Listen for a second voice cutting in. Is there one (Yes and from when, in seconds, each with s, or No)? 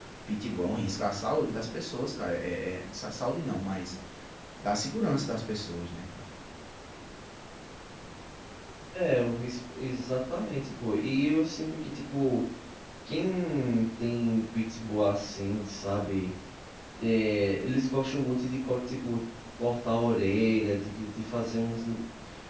No